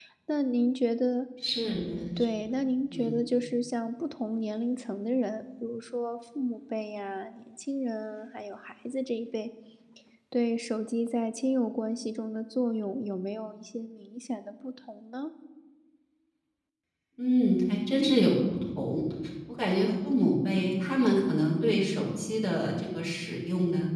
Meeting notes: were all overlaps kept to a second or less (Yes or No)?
Yes